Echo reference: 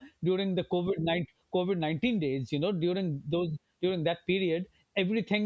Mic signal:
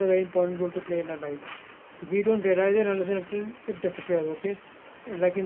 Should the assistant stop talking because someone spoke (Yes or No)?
Yes